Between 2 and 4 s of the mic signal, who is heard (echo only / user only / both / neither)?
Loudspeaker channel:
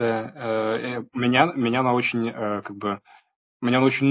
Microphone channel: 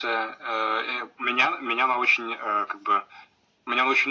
echo only